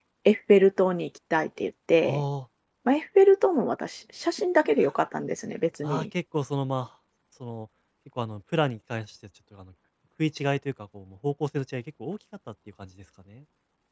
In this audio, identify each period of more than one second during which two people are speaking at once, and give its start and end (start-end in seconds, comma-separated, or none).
none